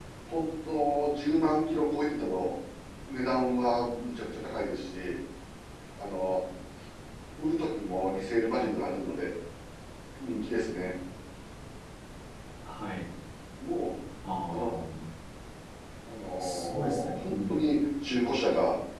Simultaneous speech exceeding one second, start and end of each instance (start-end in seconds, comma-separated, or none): 16.4-17.7